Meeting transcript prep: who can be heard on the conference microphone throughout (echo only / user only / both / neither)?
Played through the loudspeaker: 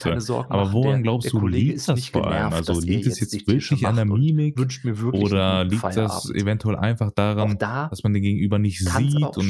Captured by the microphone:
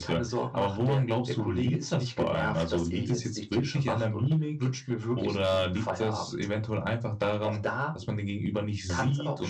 echo only